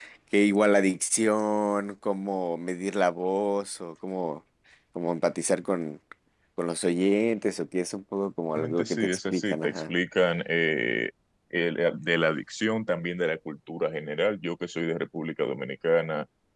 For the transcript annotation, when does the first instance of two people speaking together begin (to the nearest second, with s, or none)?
9 s